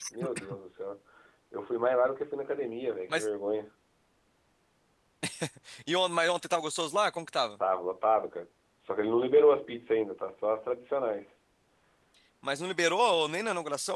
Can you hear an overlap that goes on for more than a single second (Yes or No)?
No